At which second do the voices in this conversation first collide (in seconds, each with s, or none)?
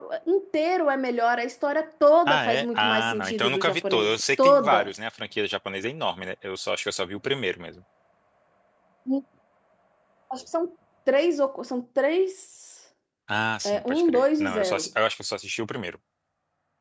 2.3 s